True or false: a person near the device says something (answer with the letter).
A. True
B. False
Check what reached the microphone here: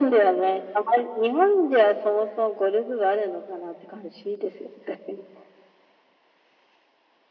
B